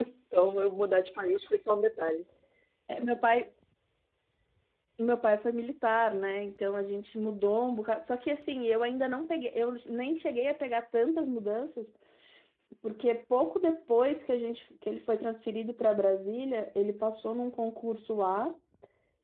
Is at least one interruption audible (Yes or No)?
No